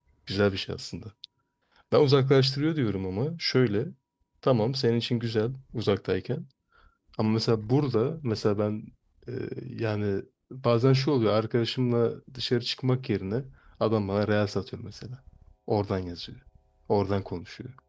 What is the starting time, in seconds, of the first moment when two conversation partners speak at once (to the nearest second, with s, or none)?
none